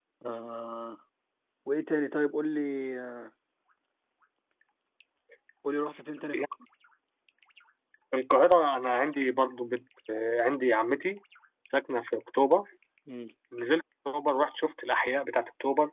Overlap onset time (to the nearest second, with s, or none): none